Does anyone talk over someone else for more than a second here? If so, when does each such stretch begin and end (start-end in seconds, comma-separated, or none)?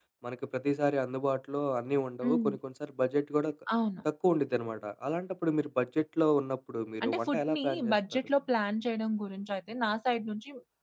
7.0-8.3